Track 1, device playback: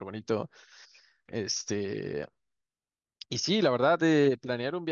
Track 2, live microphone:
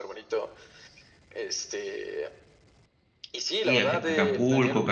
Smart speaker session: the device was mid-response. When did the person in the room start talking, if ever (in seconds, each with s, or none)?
3.6 s